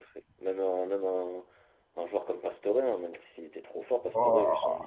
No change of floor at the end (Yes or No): Yes